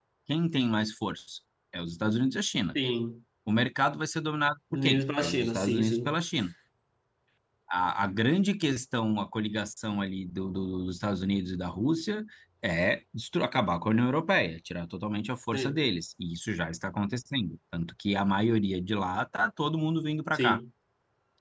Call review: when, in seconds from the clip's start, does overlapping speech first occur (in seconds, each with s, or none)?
4.7 s